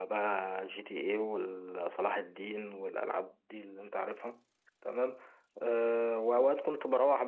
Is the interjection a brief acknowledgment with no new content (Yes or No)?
Yes